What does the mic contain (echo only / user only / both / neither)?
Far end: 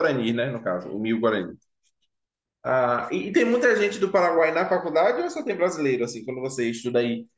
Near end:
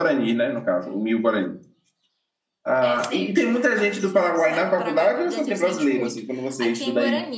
both